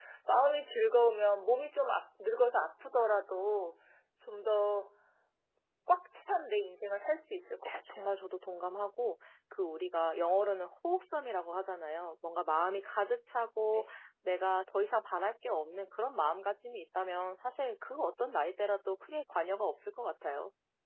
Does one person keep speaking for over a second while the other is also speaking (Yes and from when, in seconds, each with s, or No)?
No